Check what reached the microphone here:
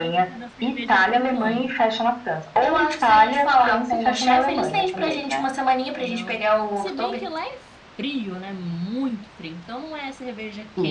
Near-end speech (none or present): present